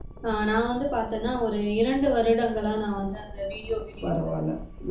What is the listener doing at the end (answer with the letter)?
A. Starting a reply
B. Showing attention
A